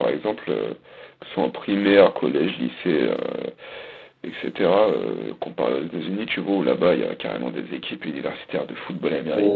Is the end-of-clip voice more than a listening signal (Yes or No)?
No